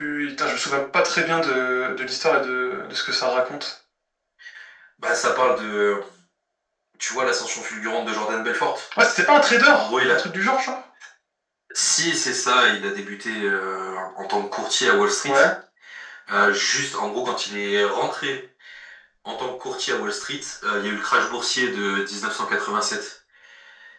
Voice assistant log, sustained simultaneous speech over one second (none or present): none